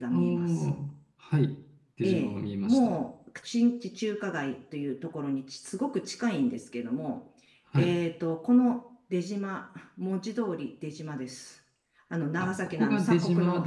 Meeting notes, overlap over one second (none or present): present